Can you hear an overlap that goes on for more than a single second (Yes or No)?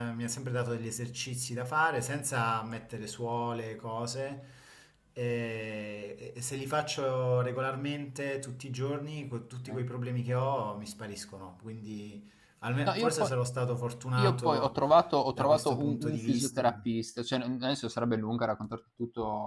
Yes